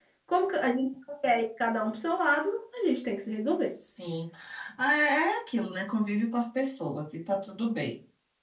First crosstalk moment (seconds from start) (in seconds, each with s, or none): none